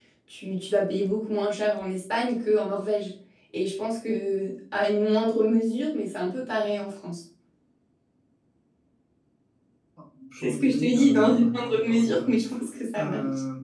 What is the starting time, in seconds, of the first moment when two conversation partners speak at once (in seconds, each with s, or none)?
10.4 s